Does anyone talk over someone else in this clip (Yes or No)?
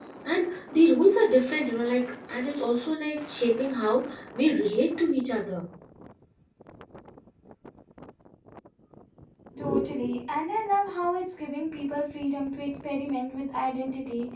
No